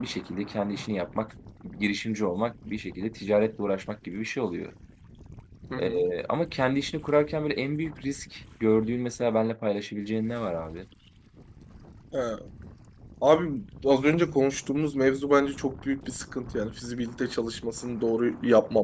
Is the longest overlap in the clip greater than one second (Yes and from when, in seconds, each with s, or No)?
No